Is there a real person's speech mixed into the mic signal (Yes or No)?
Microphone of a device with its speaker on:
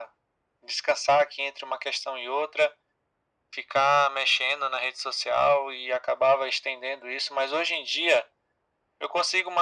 No